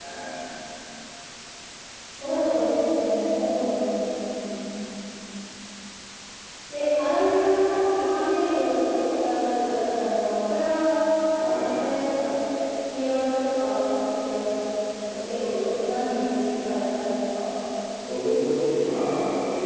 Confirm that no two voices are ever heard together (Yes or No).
Yes